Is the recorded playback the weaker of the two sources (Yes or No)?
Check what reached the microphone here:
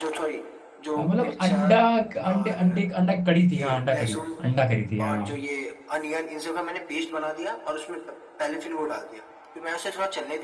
Yes